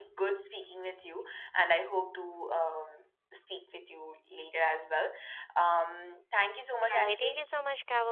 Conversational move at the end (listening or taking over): taking over